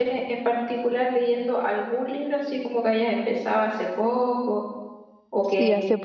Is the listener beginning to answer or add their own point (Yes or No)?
Yes